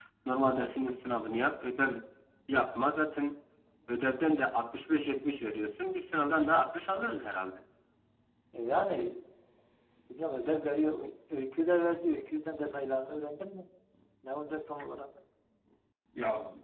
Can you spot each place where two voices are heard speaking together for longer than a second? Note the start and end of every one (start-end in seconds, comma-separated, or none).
none